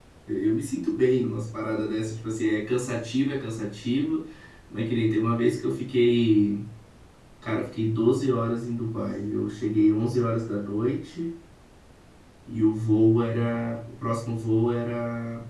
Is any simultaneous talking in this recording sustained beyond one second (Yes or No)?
No